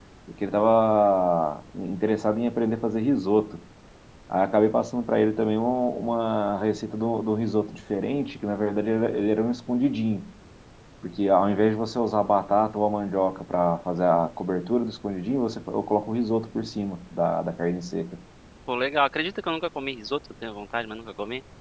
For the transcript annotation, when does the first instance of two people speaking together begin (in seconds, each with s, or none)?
none